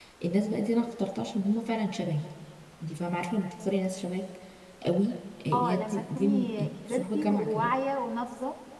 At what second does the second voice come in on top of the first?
5.5 s

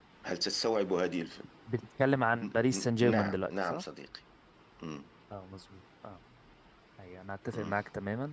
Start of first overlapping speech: 2.4 s

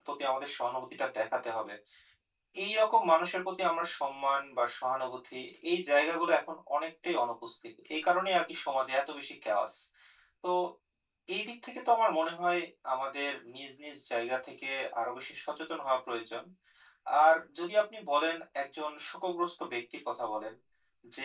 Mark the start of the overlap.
none

